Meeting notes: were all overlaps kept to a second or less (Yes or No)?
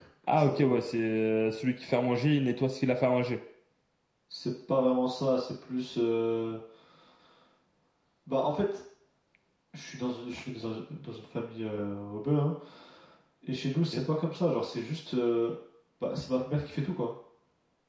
Yes